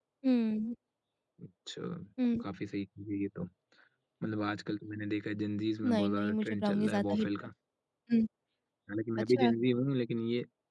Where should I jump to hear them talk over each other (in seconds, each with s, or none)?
5.8 s